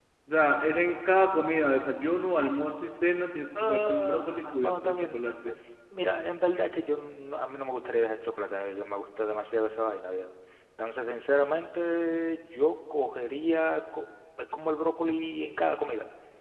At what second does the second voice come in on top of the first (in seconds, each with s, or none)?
3.5 s